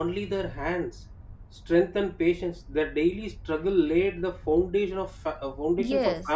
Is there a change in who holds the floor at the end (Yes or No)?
No